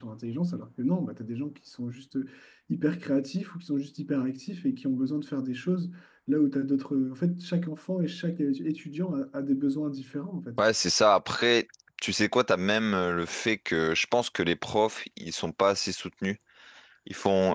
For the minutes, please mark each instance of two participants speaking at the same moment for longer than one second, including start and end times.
none

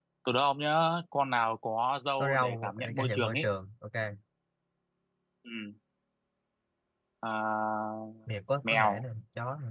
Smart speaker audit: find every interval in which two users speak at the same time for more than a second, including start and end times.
2.2-3.5

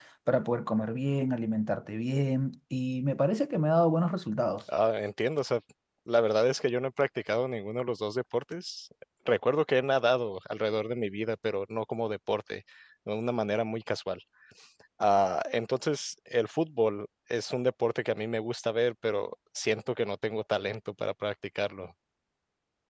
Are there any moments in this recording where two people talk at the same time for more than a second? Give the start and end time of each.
none

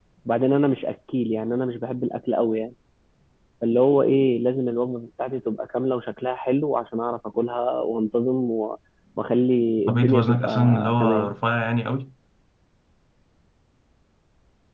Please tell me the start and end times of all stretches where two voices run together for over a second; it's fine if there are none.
9.9-11.3

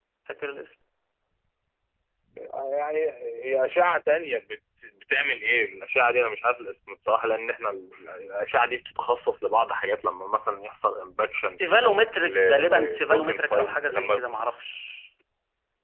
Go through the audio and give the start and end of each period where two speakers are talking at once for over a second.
12.2-14.2

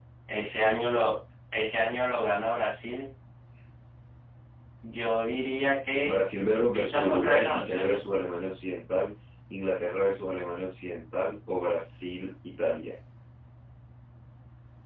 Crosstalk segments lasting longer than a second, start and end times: 6.7-8.0

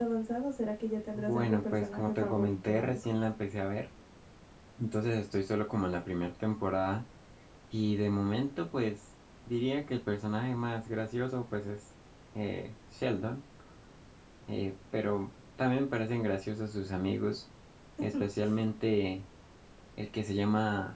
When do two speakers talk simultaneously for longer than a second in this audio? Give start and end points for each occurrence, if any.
1.1-3.0

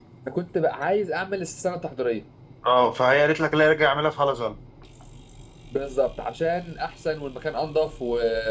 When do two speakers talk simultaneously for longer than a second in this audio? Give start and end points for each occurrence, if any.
none

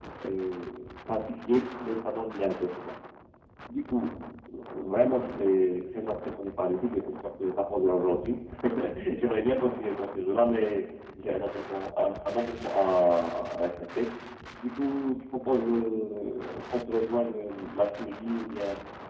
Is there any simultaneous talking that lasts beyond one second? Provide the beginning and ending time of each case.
none

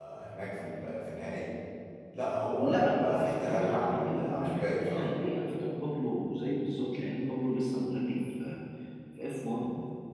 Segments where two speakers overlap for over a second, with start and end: 2.6-5.1

